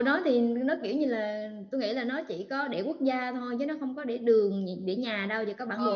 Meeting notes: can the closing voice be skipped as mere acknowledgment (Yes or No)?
No